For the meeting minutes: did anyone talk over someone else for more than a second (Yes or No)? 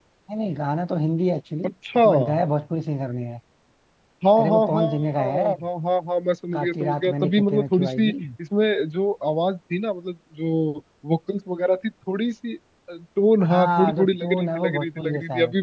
Yes